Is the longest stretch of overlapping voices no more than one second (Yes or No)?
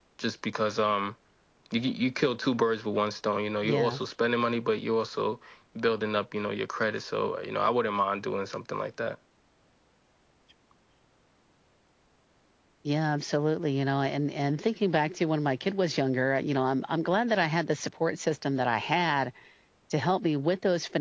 Yes